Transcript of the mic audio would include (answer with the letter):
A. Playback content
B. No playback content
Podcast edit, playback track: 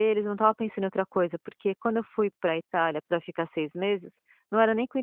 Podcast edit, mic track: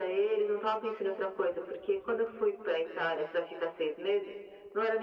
A